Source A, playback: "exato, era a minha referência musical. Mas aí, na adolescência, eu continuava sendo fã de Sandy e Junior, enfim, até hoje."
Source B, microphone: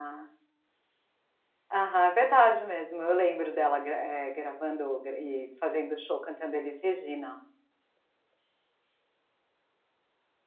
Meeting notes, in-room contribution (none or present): present